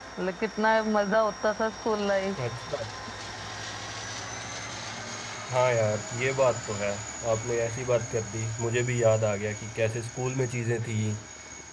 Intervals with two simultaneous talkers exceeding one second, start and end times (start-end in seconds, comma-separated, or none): none